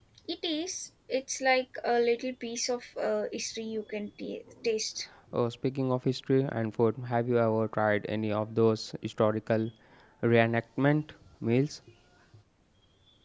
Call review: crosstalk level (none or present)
none